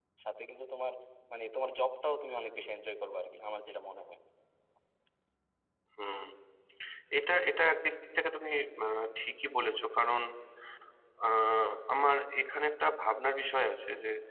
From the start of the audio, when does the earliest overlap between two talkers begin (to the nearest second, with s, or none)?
none